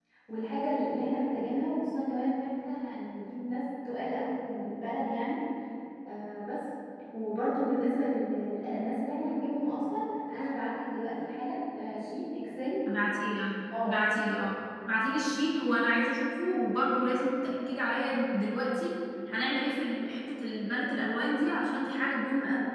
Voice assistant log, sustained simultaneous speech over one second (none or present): none